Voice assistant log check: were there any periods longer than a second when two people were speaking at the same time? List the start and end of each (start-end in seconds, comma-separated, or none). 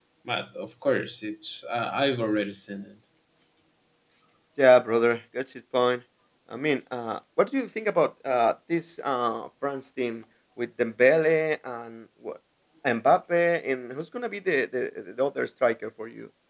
none